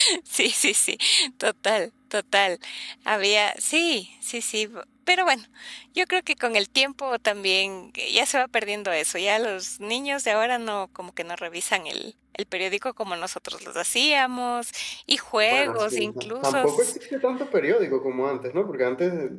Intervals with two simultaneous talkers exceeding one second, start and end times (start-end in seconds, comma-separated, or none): 15.4-16.6